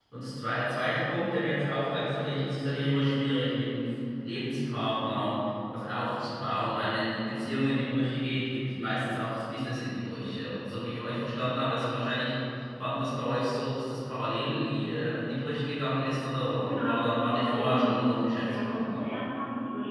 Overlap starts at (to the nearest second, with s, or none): 17 s